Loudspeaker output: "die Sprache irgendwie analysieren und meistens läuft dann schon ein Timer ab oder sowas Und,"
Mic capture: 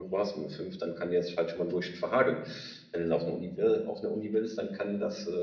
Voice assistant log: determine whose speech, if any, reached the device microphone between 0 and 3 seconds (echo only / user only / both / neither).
user only